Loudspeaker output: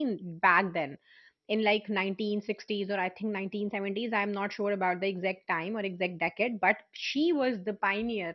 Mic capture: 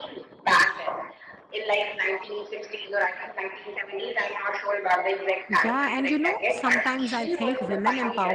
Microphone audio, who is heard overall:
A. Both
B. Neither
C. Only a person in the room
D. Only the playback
A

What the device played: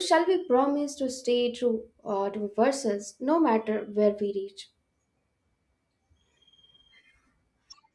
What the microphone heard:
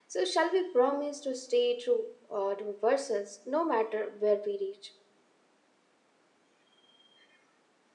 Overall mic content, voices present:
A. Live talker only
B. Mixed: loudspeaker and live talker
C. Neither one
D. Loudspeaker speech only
D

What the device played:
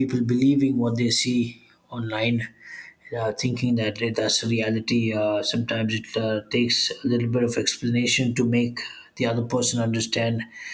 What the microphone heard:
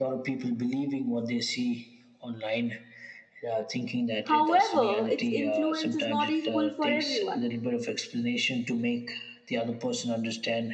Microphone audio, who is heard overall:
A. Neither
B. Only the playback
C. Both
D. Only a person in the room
C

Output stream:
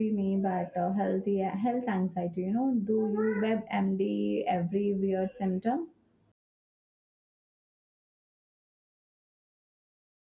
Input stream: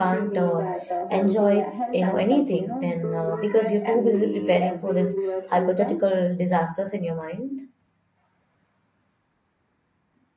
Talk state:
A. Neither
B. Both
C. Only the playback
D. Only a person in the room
B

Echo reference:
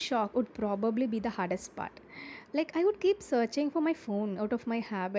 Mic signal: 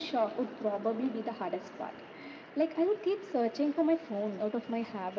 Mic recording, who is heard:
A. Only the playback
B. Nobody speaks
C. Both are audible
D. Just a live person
A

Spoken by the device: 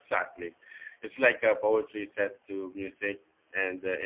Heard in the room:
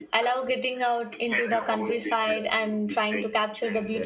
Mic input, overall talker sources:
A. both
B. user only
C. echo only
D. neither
A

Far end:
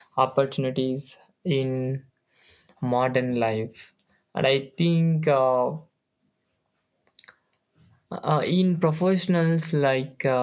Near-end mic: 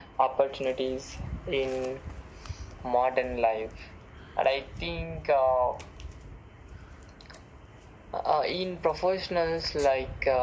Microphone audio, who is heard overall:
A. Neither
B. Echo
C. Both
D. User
B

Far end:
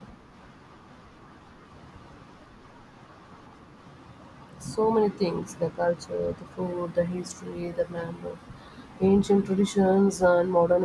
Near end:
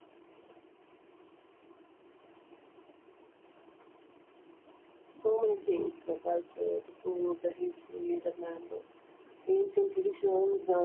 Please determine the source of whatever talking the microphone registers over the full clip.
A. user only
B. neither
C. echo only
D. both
C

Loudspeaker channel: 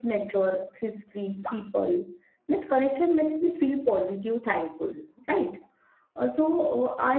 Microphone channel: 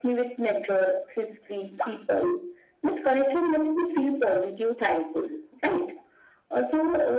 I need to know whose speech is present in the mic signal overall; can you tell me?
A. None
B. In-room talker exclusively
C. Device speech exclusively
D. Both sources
C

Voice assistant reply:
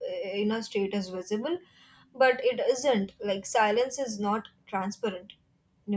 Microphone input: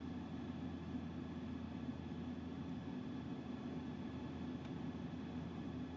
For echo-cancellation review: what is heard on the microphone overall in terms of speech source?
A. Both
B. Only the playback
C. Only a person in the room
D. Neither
D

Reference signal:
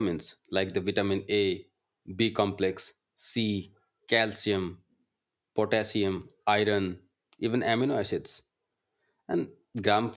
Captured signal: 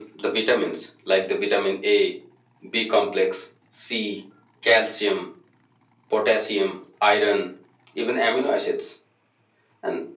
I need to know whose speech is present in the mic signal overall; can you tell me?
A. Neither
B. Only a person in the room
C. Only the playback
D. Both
C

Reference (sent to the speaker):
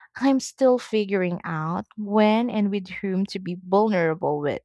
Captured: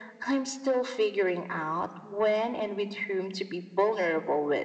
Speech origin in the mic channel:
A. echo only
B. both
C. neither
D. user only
A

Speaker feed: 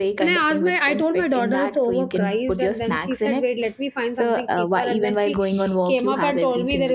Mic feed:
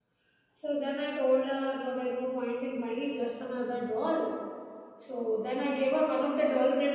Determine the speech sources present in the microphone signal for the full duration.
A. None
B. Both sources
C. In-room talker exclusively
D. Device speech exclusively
C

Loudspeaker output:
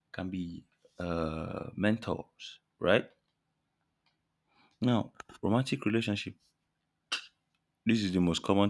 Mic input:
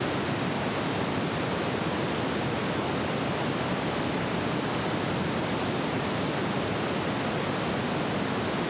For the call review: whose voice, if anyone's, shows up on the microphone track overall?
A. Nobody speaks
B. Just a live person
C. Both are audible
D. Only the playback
A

